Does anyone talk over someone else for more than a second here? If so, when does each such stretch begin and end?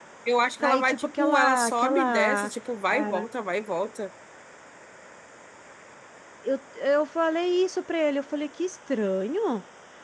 0.6-2.5

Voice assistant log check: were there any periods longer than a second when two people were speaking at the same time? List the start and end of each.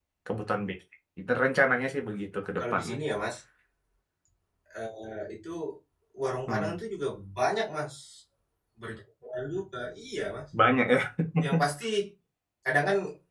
none

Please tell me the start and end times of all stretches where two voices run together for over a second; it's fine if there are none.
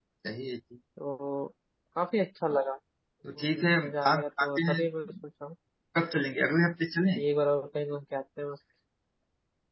3.4-4.8

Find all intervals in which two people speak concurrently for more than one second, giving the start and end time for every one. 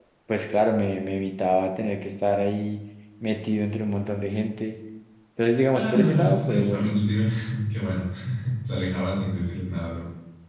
5.7-6.9

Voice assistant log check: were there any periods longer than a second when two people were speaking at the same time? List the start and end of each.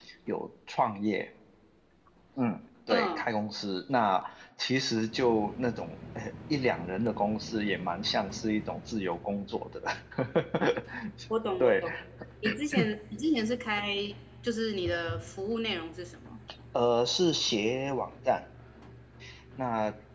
none

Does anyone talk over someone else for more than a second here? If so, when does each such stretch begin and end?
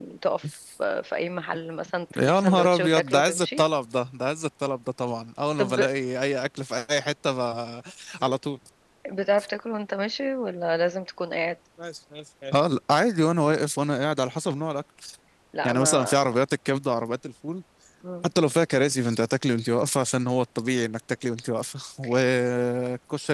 2.2-3.6

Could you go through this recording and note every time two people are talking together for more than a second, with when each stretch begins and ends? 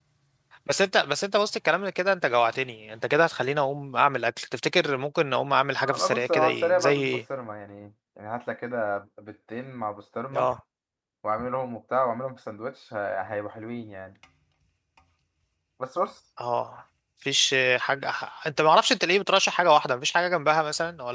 5.8-7.2

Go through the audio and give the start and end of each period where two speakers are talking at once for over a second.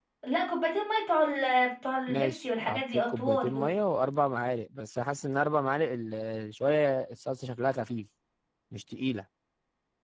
2.1-3.7

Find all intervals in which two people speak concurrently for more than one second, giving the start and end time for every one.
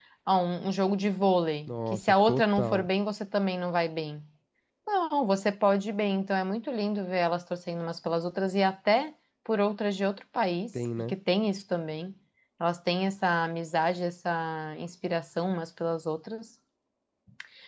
1.7-2.9

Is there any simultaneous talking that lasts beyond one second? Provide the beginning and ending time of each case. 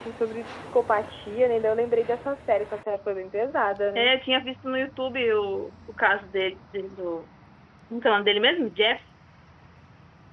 none

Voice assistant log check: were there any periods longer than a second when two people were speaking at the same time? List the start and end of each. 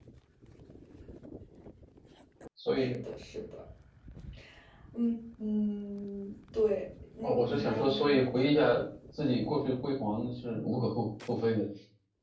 7.2-8.6

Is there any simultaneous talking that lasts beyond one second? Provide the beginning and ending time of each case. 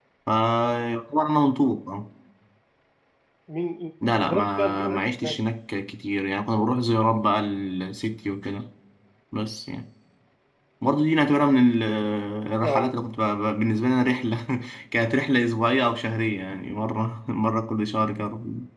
4.2-5.4

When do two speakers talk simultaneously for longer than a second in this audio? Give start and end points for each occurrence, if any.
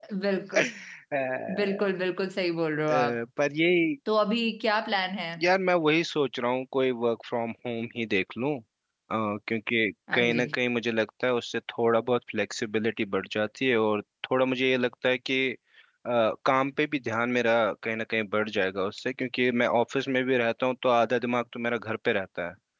none

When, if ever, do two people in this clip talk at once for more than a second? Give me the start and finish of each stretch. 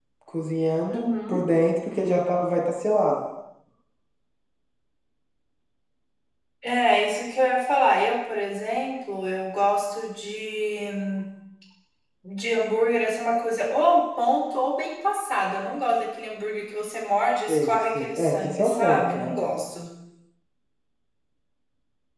17.5-19.4

